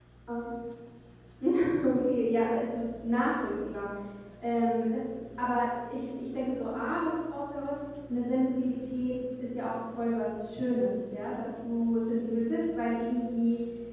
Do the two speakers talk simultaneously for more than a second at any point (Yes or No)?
No